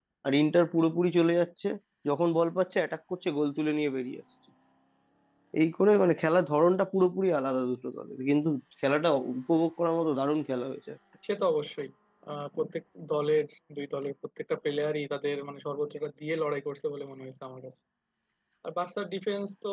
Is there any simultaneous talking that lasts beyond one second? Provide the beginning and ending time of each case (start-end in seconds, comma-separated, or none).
none